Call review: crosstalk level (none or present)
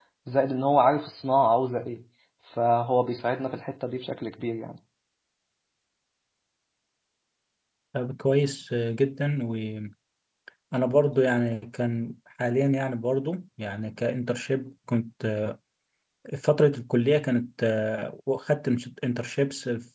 none